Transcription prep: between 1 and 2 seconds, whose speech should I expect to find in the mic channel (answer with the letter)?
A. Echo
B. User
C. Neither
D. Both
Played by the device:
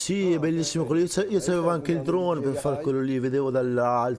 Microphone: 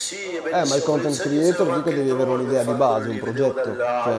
D